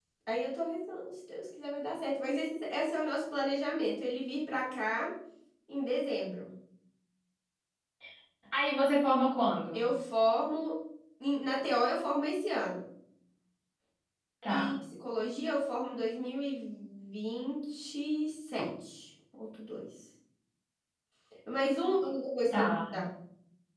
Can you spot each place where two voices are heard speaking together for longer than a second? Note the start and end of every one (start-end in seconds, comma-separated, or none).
none